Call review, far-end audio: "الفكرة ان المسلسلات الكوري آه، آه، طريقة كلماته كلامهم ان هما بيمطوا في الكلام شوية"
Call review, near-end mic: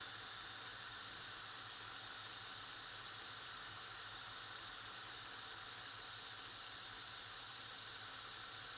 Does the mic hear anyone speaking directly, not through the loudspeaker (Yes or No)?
No